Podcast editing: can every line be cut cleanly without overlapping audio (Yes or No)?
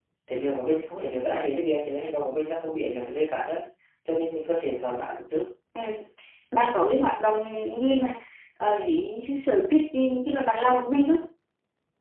Yes